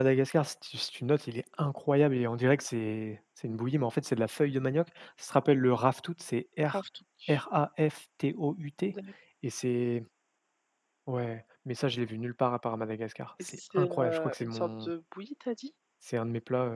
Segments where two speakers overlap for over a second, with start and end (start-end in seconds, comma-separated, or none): 13.4-14.9